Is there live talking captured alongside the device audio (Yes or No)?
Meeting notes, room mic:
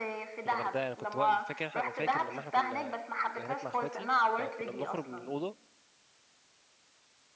Yes